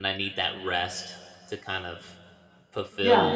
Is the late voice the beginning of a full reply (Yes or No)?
No